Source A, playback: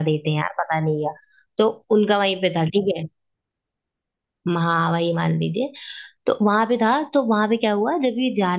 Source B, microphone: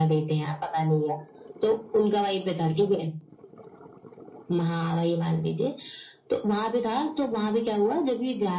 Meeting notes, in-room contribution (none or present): none